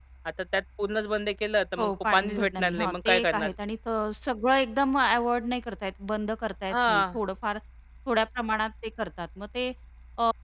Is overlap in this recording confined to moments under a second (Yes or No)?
No